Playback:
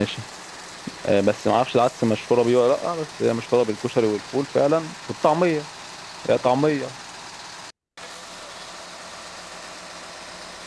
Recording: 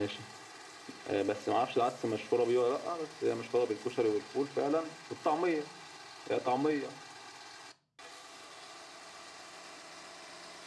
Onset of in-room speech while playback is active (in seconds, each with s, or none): none